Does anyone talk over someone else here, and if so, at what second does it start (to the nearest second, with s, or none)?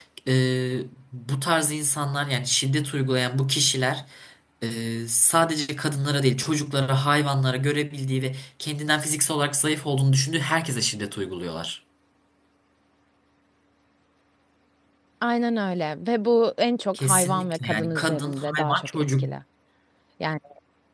17 s